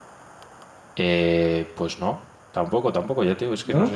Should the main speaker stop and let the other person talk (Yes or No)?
No